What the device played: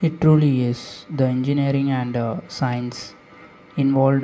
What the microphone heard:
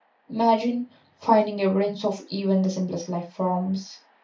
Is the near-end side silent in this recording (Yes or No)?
No